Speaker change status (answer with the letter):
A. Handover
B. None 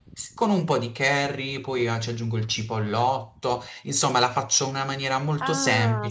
A